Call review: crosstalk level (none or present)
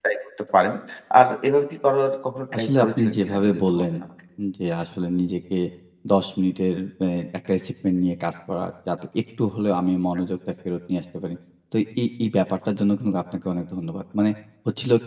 present